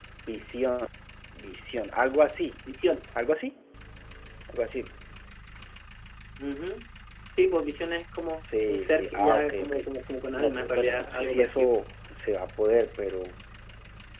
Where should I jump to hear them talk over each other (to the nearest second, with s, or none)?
8 s